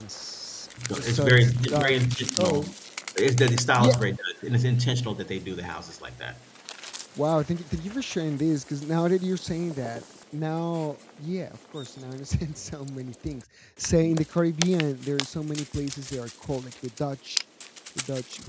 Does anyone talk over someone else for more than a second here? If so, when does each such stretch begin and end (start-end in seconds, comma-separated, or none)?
0.9-2.6